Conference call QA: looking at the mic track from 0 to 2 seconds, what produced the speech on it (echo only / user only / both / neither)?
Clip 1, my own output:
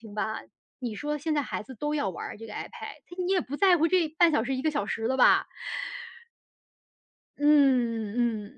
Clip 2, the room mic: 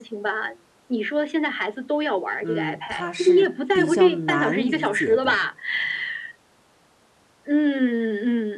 echo only